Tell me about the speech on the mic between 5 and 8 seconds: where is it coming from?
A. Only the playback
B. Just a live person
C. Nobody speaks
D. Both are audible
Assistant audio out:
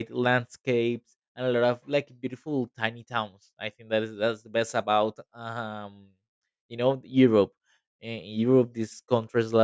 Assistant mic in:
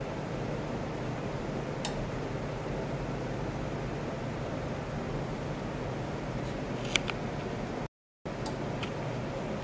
C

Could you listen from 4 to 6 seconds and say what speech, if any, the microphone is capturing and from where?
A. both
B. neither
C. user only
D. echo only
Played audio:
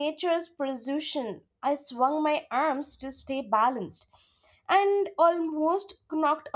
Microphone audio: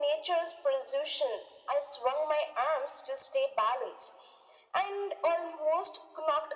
D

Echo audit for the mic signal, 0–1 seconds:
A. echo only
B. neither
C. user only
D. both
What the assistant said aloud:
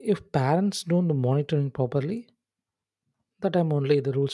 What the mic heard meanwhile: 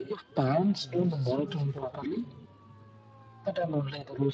D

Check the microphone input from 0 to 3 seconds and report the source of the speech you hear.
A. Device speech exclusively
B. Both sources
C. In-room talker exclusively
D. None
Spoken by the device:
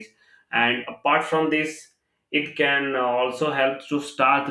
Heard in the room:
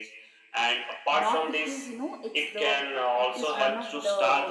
B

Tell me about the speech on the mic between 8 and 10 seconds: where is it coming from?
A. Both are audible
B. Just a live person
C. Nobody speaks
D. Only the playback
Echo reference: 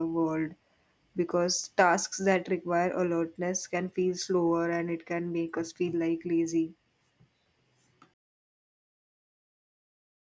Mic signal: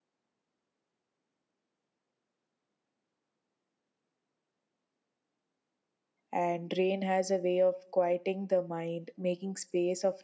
B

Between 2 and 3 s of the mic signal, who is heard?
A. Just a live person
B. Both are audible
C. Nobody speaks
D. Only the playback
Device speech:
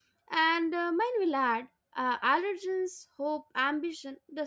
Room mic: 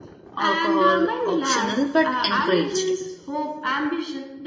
B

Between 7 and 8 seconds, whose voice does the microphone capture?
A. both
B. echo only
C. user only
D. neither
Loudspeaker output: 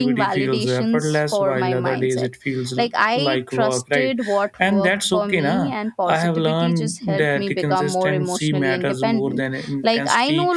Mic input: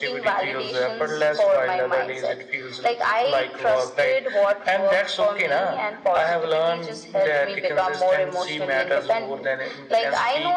B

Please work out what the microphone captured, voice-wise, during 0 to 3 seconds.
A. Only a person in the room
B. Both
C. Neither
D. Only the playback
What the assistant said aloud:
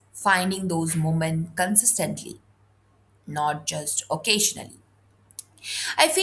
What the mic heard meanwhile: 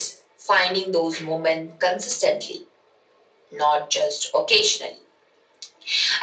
D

